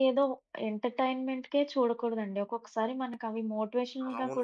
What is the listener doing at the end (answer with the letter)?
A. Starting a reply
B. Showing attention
A